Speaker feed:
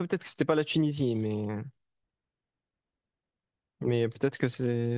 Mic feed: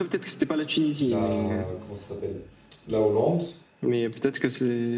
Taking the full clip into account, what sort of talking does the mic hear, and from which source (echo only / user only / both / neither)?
both